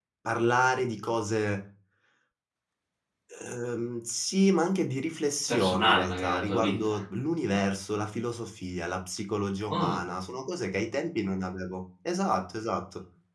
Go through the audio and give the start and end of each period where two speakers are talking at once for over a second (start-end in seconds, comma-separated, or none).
5.5-7.0